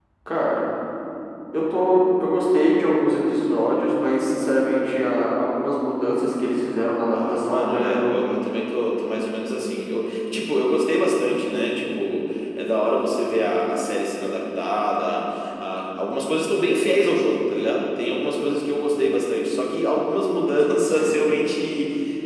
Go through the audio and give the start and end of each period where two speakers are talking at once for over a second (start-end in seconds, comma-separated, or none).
7.1-8.3